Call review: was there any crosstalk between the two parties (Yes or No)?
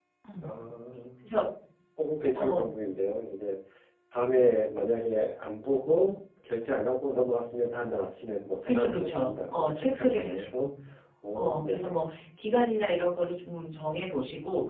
Yes